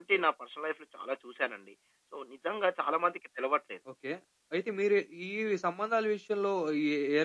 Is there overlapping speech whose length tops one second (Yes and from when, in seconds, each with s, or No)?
No